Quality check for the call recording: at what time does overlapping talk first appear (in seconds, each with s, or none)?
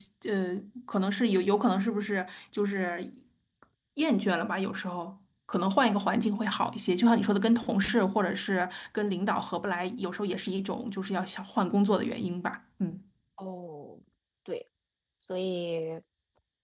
none